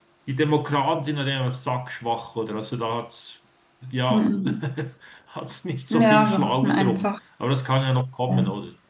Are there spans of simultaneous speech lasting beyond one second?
Yes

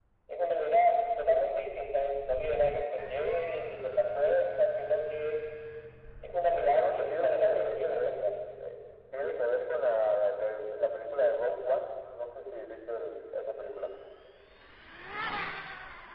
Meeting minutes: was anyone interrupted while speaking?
Yes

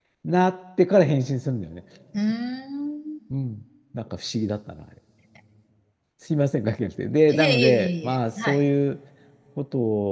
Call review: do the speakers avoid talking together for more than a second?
No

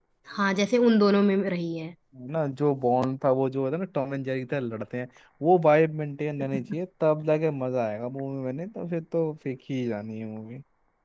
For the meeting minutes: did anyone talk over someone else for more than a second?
No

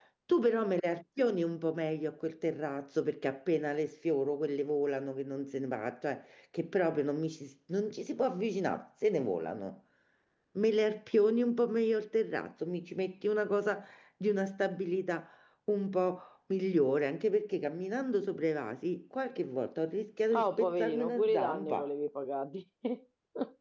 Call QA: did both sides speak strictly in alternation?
No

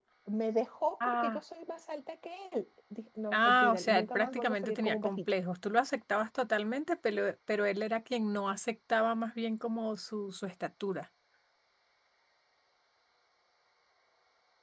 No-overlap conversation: No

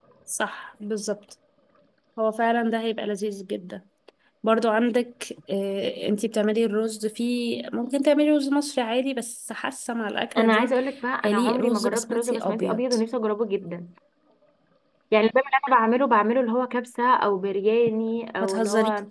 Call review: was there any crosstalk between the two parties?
Yes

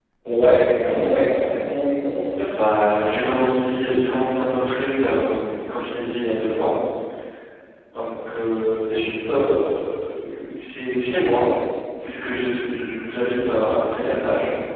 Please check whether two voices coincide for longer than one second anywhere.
No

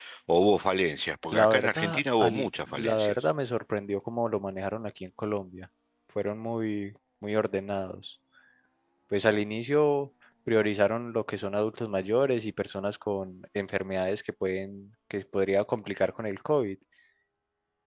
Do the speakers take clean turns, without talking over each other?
No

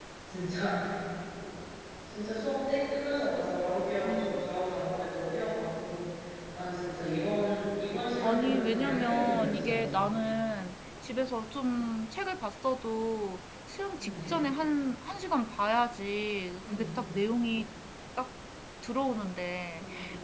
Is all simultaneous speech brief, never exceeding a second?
No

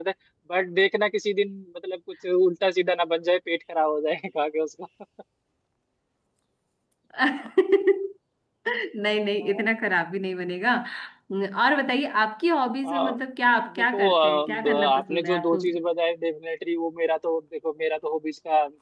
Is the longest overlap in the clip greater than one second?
Yes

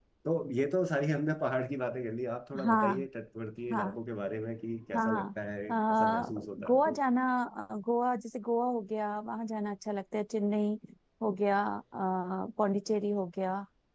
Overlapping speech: Yes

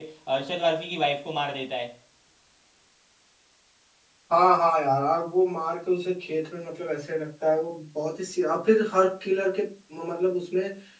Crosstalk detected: No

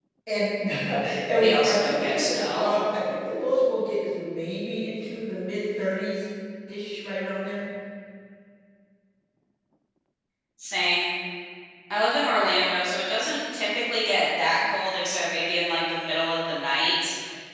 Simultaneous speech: Yes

